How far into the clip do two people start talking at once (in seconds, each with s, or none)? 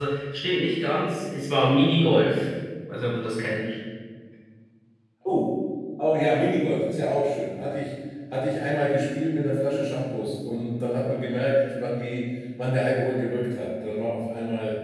none